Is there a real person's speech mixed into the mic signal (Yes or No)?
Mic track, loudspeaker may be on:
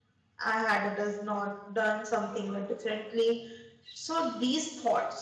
Yes